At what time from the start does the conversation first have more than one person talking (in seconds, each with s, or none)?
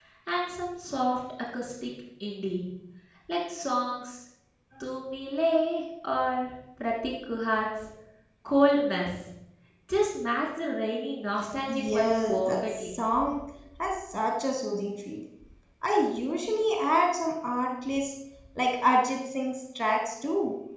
11.7 s